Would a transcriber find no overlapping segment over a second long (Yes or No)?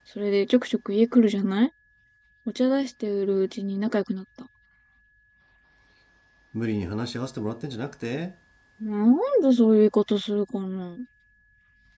Yes